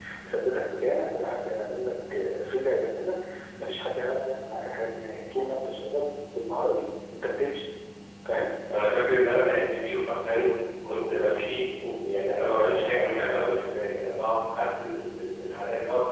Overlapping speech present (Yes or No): No